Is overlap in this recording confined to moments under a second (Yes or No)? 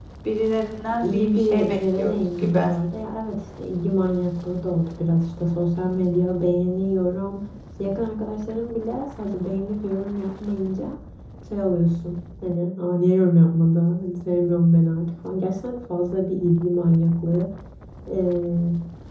No